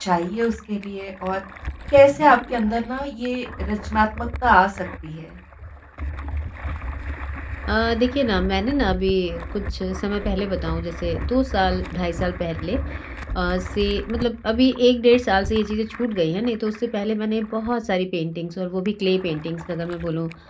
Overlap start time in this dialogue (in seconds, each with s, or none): none